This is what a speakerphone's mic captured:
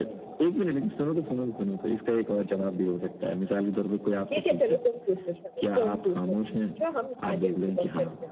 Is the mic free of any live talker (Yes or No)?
No